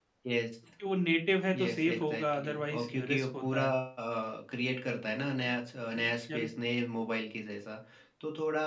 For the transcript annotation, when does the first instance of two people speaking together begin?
2 s

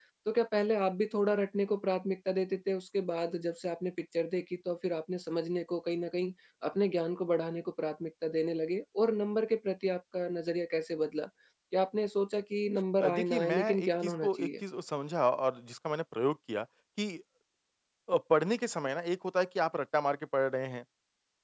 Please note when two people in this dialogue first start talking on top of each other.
13 s

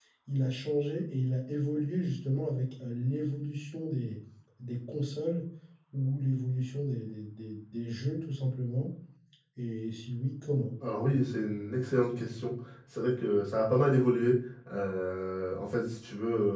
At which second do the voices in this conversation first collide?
none

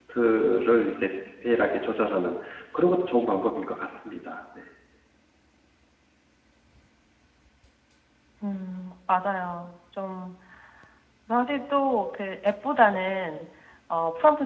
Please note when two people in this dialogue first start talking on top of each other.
none

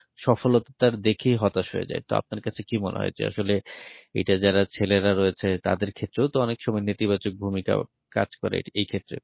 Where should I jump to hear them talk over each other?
none

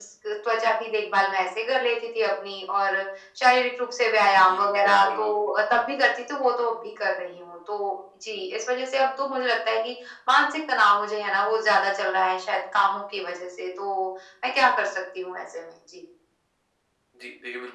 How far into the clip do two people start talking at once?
4 s

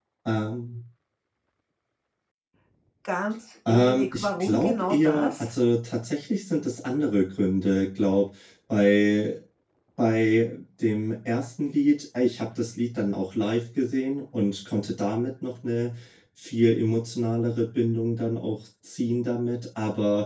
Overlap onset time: 4 s

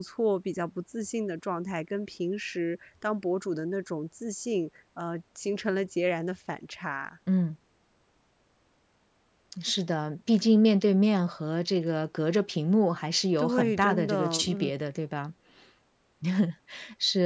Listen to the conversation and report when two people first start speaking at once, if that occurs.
13 s

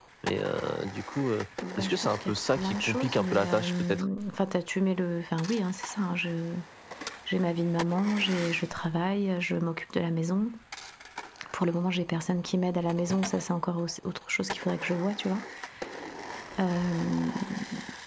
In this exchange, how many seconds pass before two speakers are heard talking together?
2 s

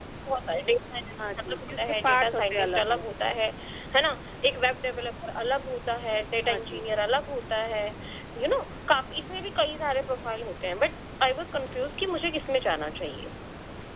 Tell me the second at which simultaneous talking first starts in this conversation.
1 s

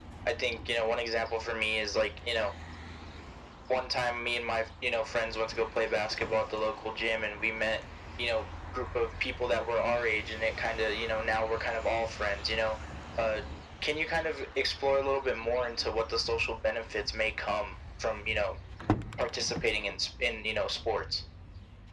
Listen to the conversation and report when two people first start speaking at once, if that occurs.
none

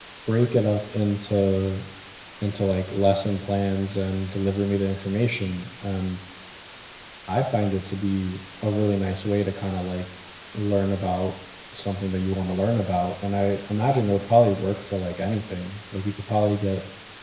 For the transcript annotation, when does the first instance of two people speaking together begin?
none

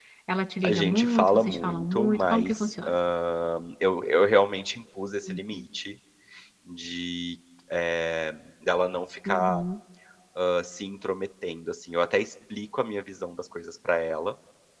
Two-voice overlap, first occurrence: 1 s

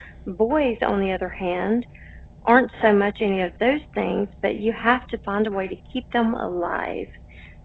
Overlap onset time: none

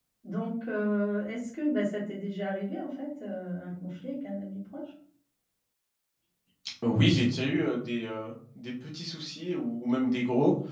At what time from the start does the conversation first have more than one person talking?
none

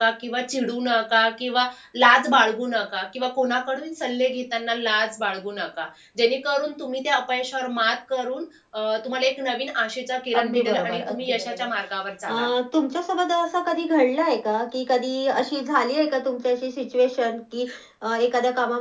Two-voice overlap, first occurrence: 10 s

